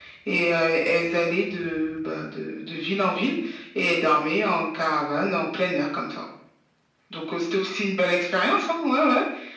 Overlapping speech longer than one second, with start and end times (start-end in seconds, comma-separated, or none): none